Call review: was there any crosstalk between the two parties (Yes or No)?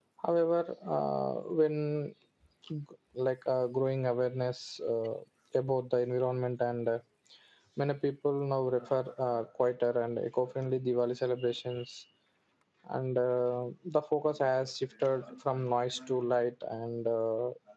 No